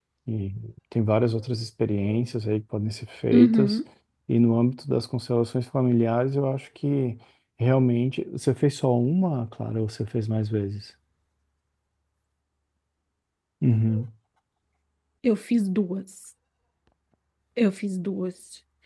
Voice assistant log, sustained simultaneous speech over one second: none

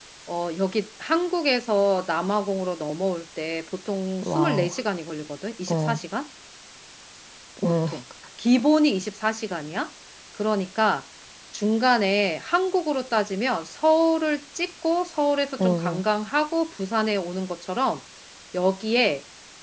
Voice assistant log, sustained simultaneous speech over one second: none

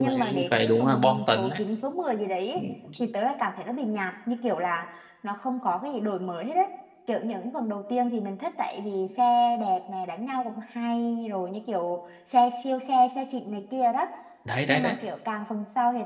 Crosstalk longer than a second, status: present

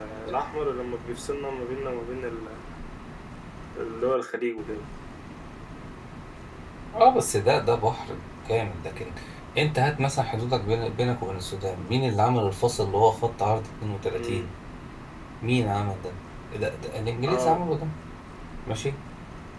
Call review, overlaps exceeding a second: none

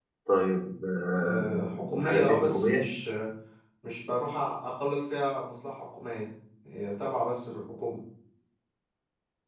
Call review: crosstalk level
present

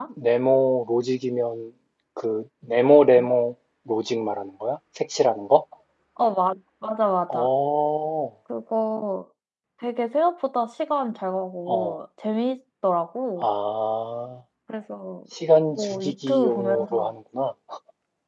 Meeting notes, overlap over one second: present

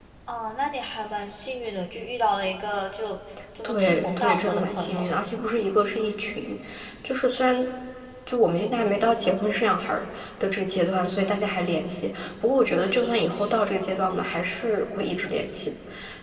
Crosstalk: present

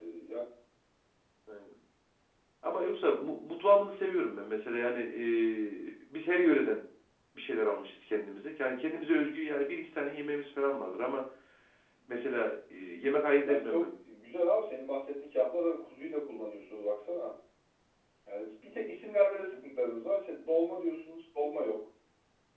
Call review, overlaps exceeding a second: none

